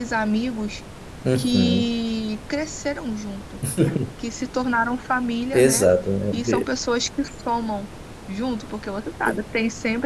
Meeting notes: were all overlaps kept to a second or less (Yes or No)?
Yes